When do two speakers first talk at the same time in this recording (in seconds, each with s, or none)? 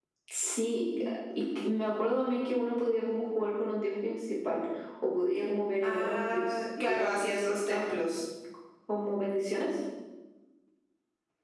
5.8 s